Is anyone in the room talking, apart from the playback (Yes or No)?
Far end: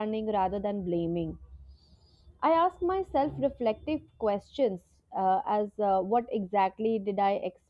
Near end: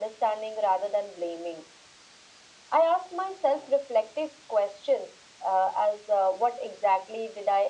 No